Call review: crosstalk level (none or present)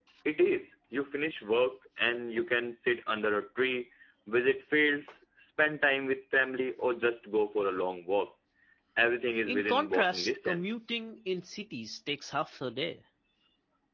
present